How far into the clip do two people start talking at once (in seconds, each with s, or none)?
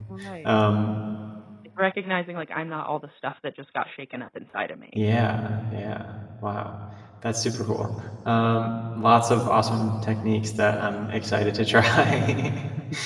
none